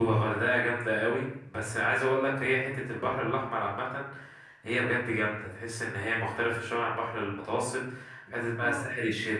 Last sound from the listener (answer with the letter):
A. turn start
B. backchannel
B